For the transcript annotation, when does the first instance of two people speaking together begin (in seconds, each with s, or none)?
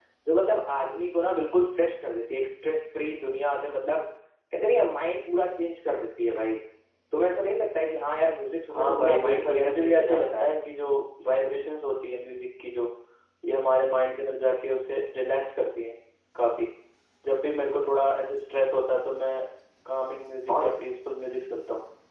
8.7 s